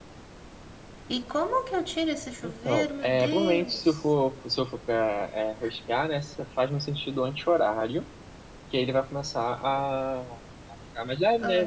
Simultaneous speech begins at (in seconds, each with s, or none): 2.4 s